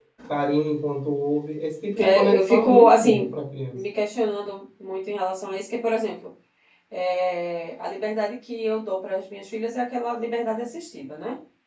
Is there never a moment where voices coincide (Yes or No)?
No